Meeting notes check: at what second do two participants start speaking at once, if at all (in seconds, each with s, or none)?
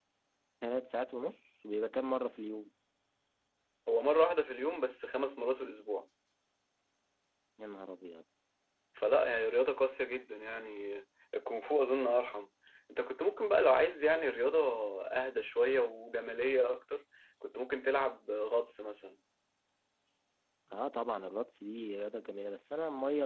none